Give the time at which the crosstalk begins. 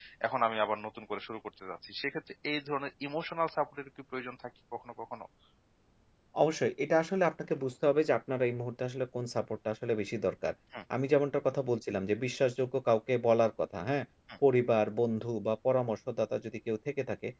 none

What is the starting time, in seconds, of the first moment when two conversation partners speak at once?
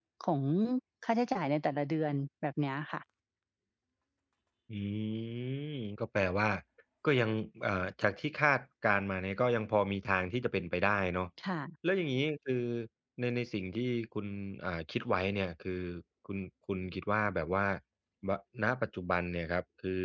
none

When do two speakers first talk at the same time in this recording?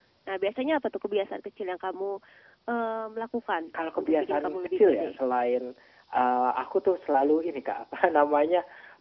3.7 s

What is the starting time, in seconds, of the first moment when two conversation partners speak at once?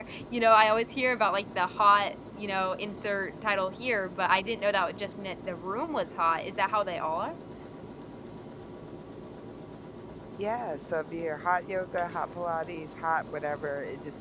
none

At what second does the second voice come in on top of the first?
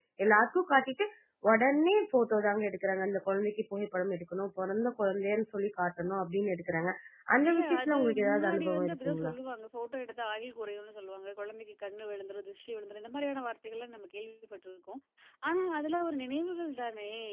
7.5 s

